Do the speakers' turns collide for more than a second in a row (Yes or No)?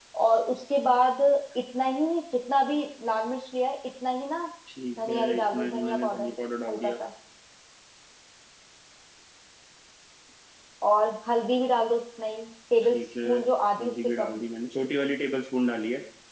Yes